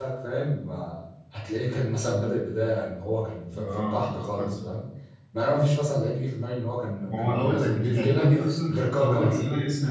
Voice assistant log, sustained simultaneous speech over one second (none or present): present